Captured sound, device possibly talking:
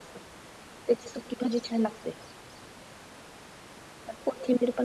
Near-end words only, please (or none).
none